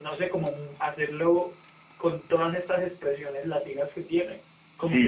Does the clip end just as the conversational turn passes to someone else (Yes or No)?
Yes